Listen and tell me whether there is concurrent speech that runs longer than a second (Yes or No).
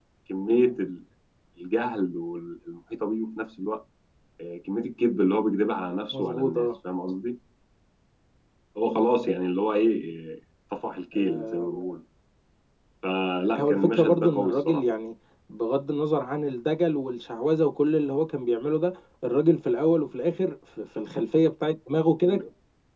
Yes